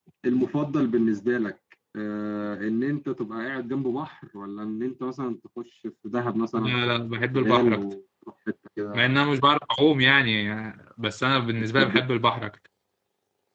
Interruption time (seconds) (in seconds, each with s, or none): 6.6 s